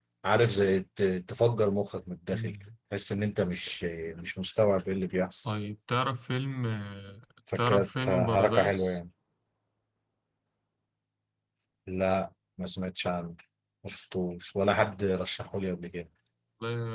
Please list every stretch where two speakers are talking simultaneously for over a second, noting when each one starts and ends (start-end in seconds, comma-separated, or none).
7.6-9.0